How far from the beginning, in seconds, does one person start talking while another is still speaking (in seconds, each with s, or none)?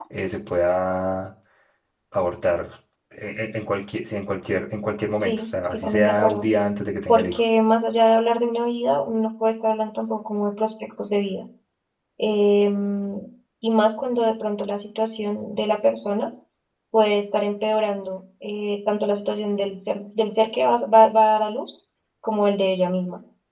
5.2 s